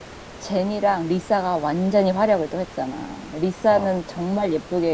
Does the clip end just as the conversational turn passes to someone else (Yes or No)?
No